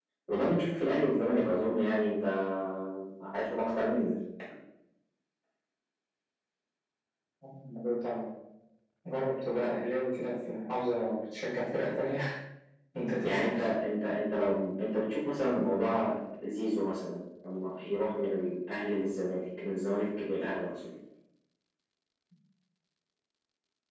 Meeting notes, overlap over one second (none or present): none